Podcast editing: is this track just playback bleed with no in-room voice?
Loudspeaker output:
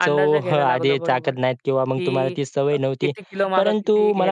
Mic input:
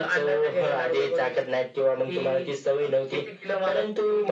Yes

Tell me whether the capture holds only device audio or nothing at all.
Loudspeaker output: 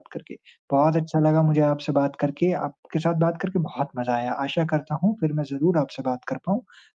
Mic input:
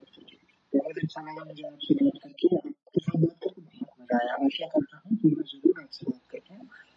Yes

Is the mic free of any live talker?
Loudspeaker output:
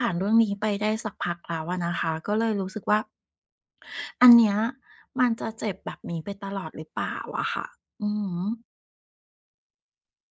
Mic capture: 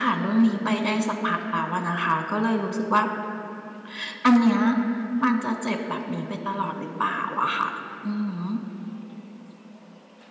Yes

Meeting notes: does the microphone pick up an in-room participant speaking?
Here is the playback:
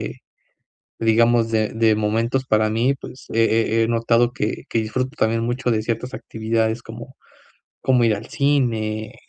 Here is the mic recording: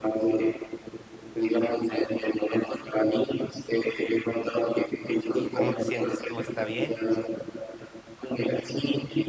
Yes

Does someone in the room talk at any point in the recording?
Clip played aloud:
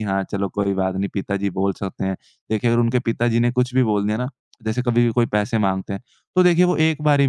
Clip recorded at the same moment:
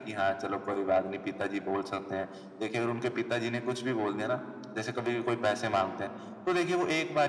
No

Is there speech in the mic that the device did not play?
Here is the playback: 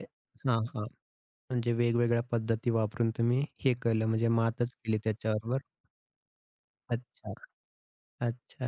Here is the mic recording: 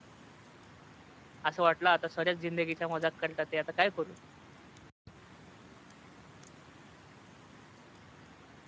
Yes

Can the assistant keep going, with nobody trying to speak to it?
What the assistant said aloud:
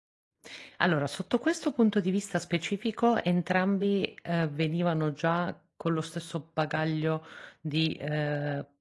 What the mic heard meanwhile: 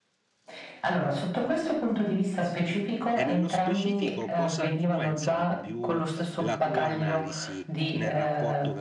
No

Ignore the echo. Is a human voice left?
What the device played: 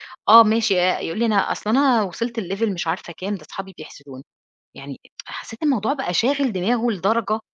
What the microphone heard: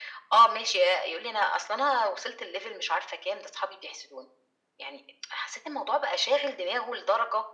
No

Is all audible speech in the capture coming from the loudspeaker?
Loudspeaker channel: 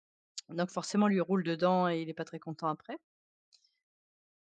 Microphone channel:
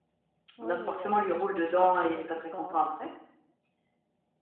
No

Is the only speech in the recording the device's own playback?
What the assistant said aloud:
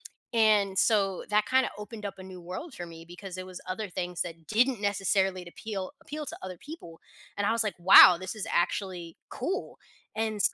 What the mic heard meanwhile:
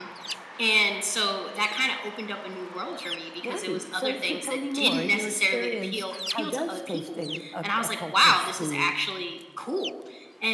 No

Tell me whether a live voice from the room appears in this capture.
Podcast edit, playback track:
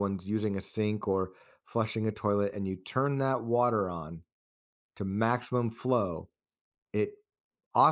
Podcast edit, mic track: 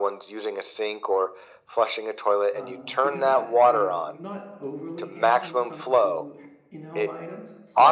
Yes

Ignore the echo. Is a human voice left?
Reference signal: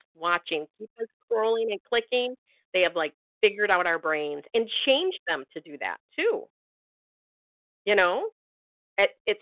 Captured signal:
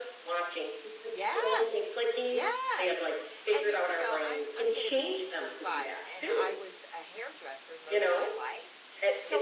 Yes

